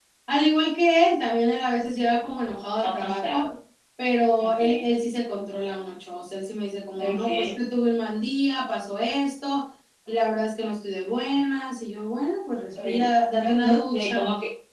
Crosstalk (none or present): present